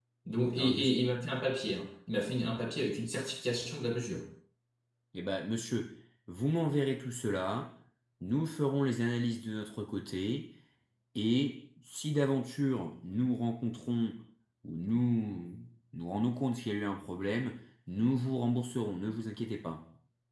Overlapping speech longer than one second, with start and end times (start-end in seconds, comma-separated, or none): none